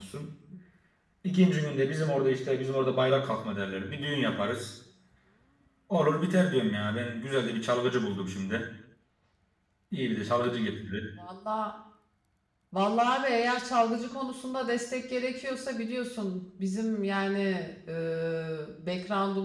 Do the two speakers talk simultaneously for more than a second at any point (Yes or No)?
No